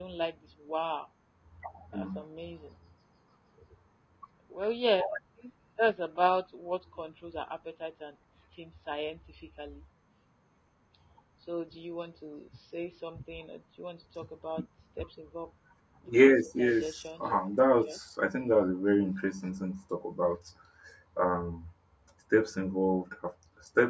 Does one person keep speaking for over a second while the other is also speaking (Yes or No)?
Yes